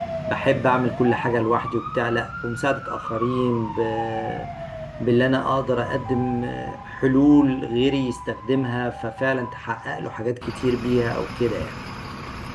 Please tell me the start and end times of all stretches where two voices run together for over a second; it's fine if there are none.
none

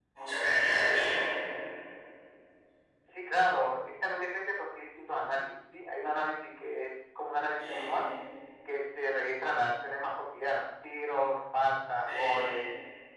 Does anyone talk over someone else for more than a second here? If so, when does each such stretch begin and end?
none

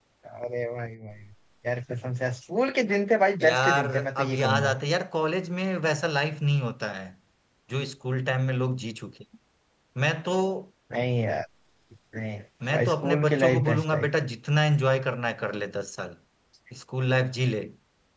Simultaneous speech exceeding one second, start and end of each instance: 3.4-4.7, 12.7-14.1

